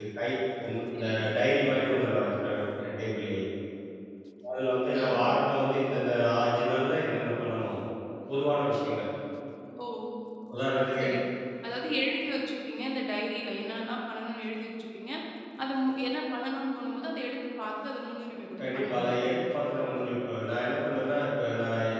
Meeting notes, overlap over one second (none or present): none